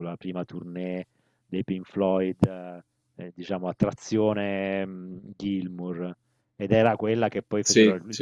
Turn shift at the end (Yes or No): No